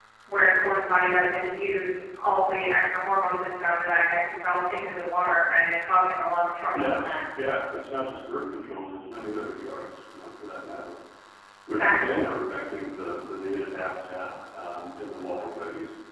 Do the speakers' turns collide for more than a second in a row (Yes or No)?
No